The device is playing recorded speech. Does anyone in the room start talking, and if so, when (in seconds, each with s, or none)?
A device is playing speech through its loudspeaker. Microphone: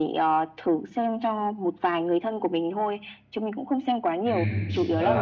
4.2 s